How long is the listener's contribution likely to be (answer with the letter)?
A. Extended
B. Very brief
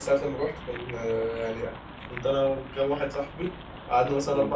B